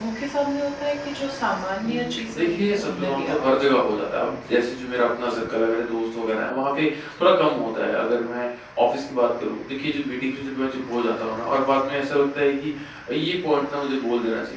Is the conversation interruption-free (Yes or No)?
No